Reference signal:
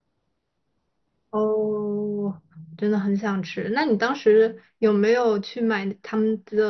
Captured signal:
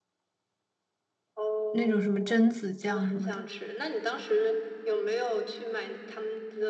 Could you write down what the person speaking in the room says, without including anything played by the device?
那种什么榛子酱什么的，

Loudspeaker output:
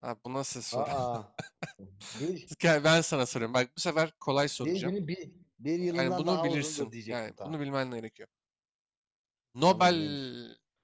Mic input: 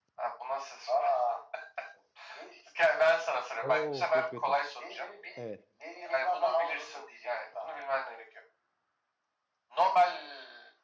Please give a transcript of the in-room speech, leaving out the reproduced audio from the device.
Oo çok kötü. Evet.

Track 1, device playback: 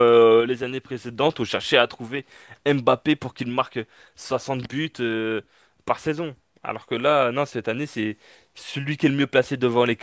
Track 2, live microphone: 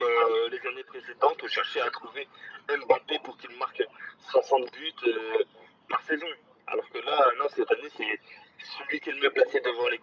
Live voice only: none

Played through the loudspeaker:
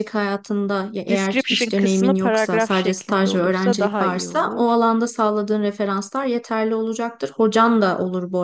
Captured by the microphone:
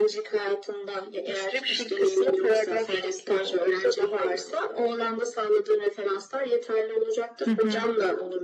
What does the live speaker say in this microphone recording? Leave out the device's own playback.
Hı hı.

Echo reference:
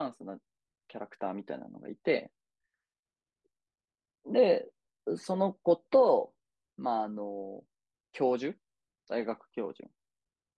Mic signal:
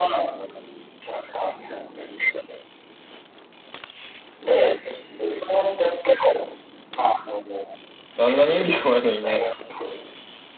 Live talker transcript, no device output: あんな人気弱いのにね。

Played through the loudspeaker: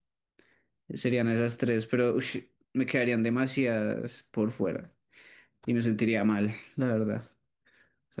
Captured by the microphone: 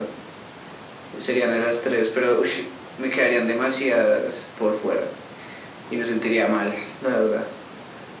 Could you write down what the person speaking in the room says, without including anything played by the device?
none

